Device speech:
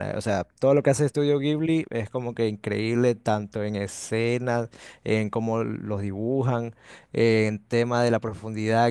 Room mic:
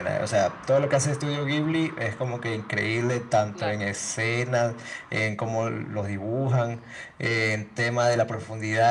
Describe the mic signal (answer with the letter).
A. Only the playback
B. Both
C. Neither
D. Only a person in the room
B